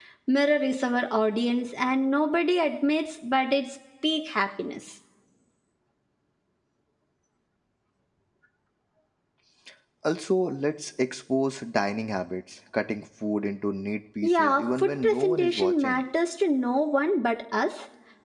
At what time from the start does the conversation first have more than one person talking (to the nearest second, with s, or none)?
14 s